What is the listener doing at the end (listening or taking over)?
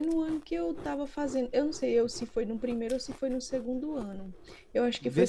taking over